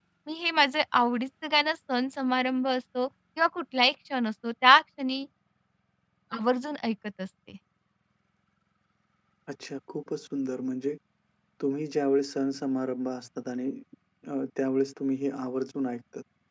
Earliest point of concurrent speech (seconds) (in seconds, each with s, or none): none